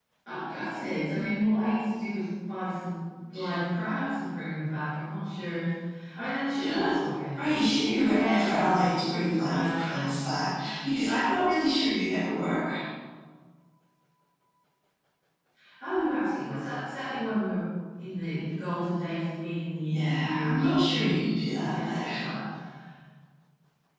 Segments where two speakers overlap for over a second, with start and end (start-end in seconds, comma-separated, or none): 7.4-10.1, 19.9-22.0